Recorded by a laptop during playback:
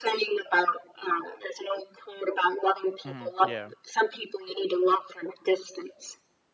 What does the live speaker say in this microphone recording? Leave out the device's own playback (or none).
Mhm, yeah.